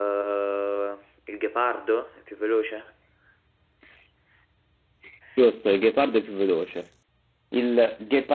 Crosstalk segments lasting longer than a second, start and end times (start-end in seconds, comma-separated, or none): none